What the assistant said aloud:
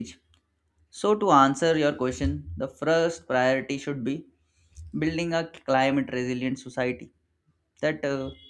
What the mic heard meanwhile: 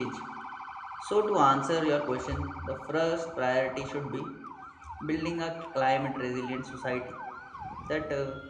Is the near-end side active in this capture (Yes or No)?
No